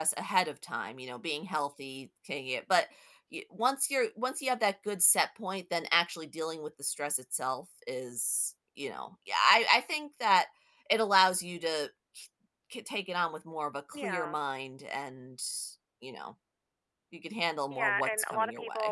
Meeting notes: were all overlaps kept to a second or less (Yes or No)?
No